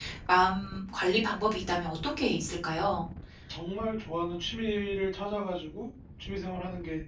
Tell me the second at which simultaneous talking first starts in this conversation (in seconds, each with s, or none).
none